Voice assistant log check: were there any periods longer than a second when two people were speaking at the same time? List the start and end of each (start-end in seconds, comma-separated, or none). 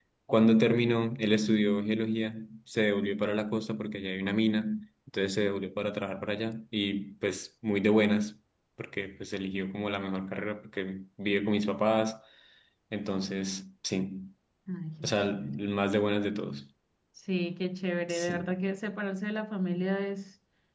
none